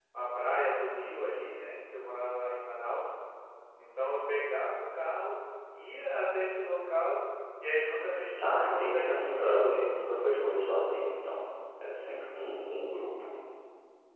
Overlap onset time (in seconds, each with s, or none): 8.4 s